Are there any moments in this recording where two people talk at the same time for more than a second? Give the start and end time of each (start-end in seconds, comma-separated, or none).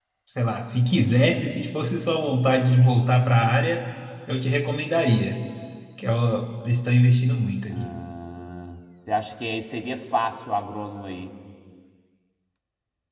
none